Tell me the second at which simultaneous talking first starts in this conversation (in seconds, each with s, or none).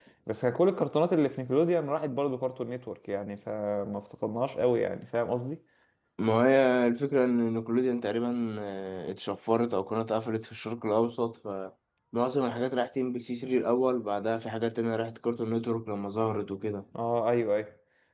none